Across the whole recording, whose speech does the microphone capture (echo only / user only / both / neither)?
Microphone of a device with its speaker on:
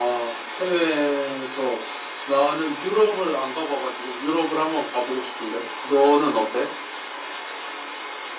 echo only